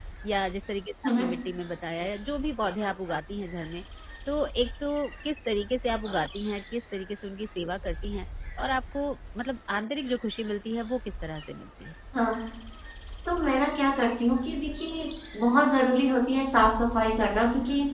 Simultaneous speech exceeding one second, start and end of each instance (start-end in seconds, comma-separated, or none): none